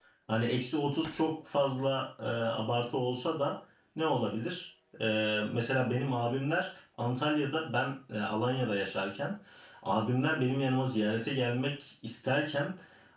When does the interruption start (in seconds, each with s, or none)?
none